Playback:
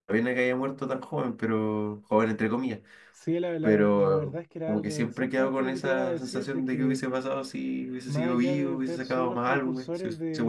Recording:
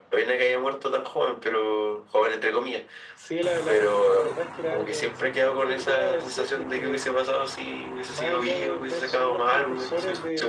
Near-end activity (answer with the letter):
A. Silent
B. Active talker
A